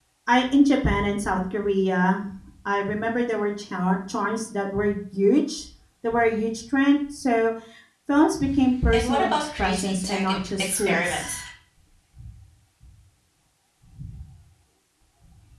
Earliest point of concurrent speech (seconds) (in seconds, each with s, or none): 8.9 s